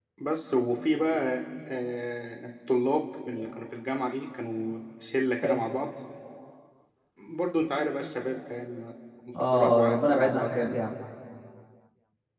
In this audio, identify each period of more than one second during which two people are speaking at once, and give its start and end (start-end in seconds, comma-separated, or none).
9.4-10.7